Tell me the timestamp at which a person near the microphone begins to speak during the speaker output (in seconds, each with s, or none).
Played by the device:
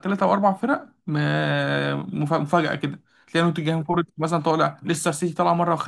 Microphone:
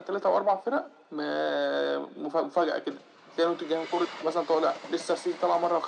none